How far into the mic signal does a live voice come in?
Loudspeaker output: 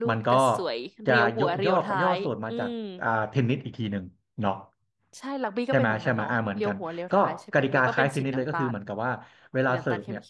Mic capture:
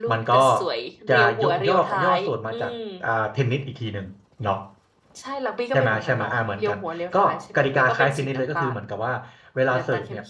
none

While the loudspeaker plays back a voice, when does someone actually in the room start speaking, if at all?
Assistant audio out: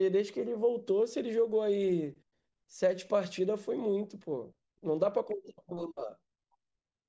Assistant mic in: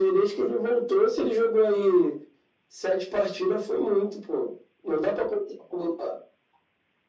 none

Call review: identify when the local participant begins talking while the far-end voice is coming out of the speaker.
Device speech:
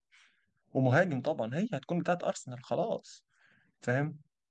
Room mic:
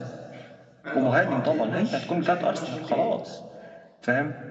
0.8 s

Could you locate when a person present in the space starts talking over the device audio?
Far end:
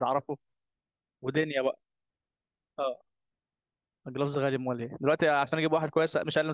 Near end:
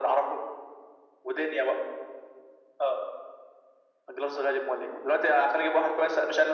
none

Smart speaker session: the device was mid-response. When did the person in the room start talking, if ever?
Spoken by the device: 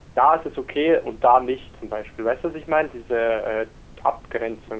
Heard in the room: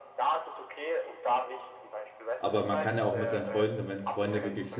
2.4 s

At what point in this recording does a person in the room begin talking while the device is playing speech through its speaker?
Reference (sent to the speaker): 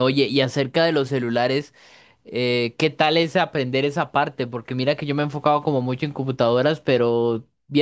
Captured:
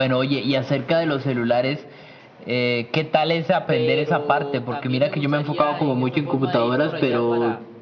3.7 s

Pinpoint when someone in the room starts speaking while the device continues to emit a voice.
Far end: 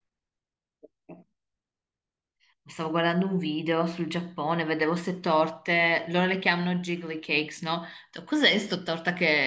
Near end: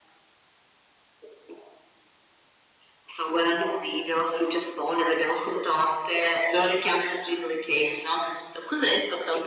none

